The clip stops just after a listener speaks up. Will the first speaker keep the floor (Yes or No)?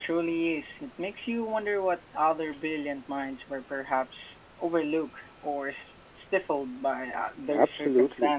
No